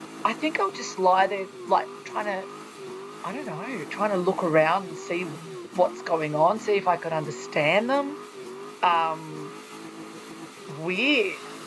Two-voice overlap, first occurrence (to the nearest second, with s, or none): none